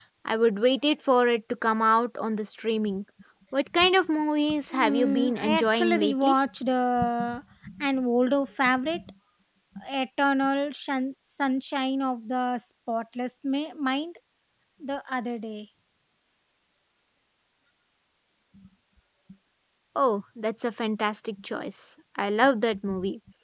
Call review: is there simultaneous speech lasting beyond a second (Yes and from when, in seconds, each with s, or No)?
Yes, from 4.7 s